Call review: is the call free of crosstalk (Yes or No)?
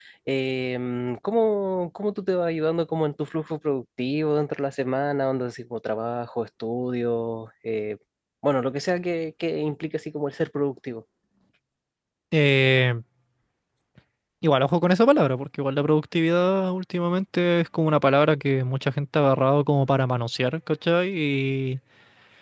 Yes